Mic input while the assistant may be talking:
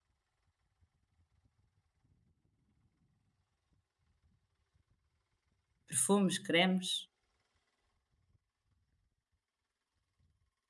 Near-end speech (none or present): present